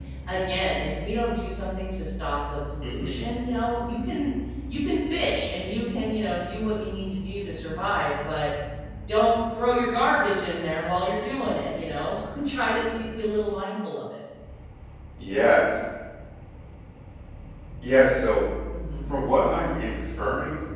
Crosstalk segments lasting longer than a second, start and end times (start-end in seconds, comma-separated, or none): none